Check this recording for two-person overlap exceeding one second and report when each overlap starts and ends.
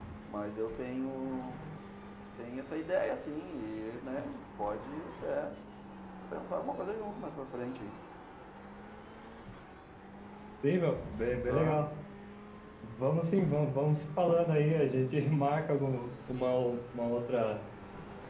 none

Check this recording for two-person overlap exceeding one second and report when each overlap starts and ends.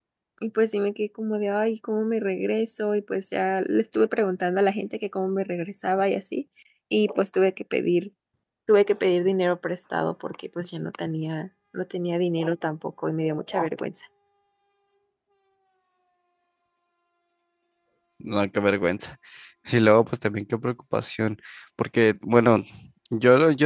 none

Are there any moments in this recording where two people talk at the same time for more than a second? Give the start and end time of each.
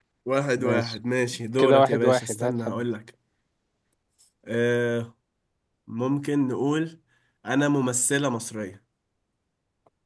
1.6-2.8

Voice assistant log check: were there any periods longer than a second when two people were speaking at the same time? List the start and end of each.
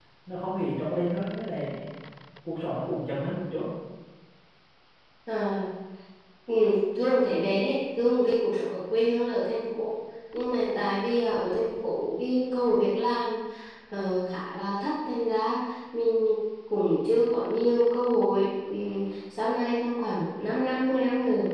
none

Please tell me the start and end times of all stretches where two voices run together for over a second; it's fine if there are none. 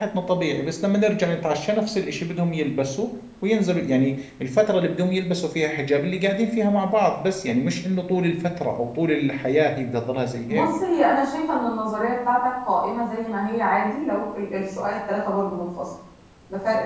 none

